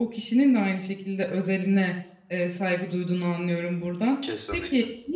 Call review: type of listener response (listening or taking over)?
listening